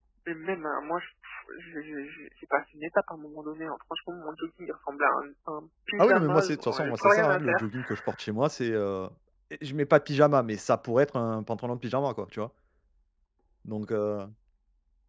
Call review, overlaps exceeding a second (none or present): present